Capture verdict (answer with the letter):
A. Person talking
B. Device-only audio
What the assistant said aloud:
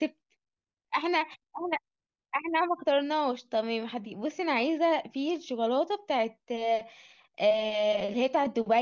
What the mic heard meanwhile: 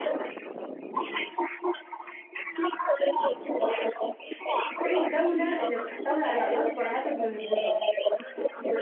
A